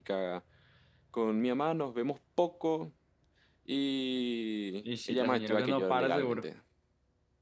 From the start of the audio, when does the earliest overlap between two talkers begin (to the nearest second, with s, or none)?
5 s